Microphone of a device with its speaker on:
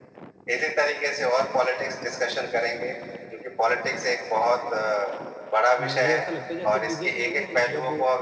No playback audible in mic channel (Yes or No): No